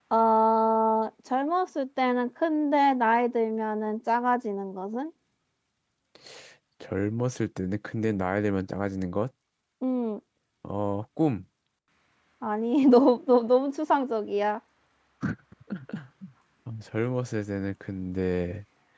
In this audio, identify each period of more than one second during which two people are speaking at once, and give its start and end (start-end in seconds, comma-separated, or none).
none